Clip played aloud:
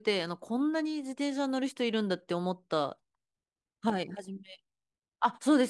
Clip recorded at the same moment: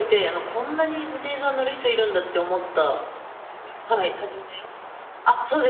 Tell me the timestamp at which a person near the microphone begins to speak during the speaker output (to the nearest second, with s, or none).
none